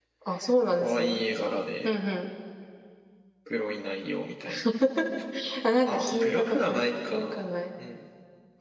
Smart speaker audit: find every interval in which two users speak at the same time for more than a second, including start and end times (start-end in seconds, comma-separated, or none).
5.9-7.4